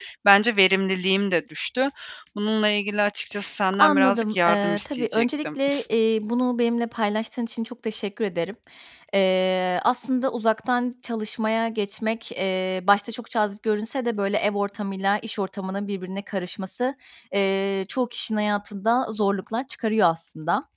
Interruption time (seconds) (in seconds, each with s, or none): 3.7 s